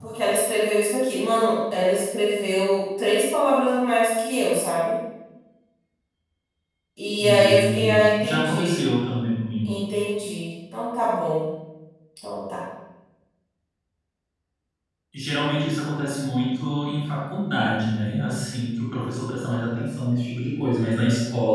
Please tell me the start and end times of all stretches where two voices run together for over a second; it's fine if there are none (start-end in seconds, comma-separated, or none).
7.2-8.8